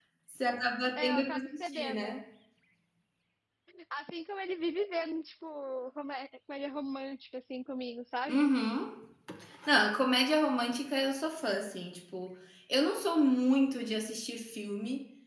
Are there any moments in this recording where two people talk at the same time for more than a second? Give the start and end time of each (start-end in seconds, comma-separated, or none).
1.0-2.2